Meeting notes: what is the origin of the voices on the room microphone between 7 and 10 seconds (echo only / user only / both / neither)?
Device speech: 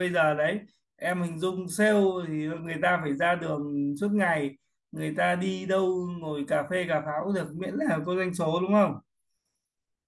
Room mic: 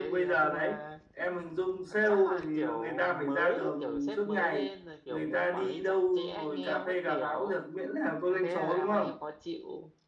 both